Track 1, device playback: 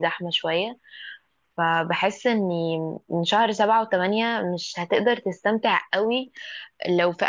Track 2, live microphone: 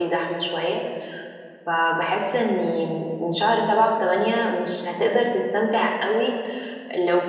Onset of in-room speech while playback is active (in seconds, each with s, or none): none